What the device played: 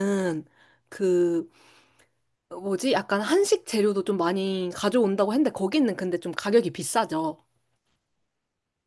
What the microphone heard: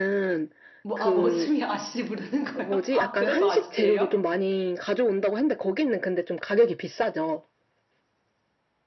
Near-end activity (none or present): present